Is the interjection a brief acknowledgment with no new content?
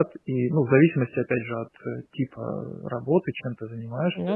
Yes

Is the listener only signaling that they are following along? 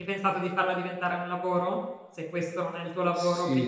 No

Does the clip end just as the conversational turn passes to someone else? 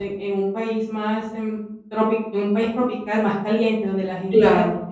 No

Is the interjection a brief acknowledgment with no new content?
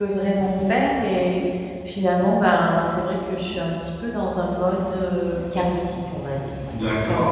No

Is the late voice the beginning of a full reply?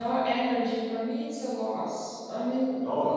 No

